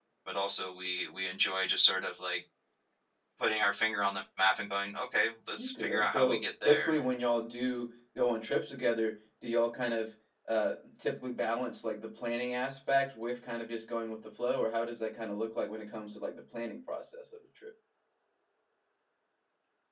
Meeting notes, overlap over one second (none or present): present